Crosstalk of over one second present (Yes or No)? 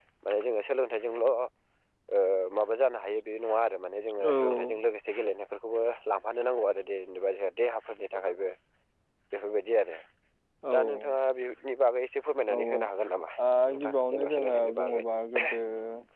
Yes